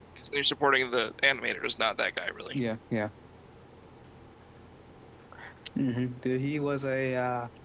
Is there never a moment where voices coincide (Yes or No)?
Yes